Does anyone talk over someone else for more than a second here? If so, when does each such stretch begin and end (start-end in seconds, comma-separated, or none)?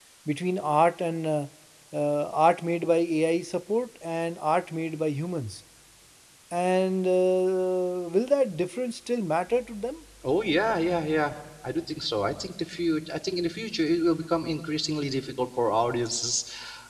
none